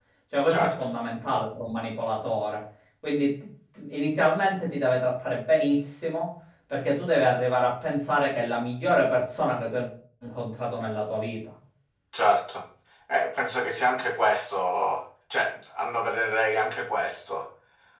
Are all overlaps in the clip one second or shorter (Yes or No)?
Yes